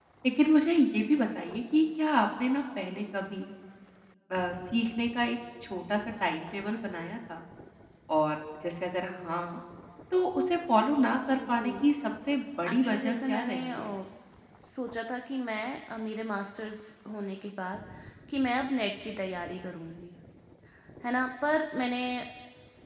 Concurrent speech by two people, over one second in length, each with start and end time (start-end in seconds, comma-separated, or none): 12.7-13.9